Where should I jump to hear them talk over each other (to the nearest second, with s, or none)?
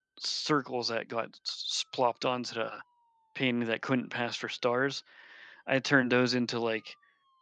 none